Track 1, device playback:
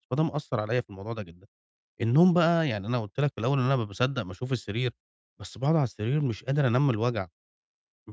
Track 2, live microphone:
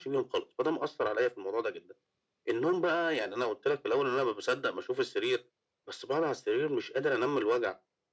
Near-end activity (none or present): none